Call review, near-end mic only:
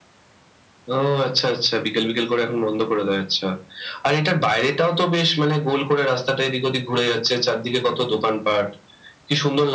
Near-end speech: none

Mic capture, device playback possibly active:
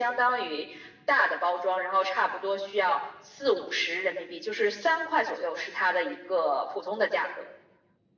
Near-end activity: none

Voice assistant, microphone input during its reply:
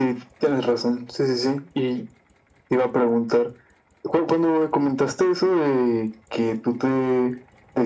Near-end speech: none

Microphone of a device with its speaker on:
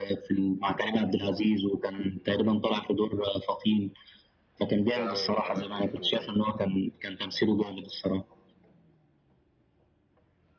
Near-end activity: present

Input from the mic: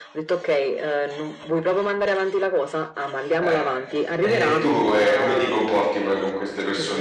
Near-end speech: present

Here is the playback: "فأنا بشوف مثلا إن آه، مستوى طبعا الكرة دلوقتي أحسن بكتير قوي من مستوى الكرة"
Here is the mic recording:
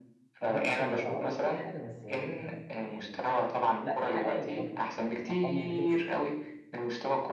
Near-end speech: present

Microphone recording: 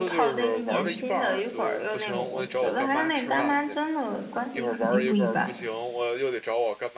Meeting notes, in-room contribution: present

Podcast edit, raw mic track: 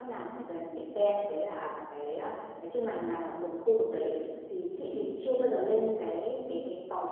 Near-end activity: present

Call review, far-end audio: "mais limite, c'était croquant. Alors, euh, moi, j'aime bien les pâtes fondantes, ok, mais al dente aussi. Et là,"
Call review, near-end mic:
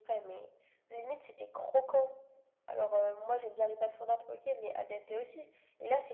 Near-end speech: none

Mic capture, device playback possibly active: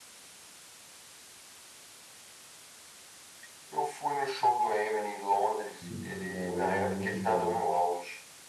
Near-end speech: present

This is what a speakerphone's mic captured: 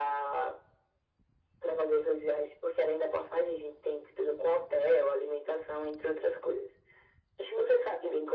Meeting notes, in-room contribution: none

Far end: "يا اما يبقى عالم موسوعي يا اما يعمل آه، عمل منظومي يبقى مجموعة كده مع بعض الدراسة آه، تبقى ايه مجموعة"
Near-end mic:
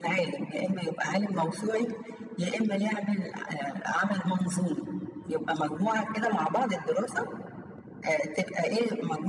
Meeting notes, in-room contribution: none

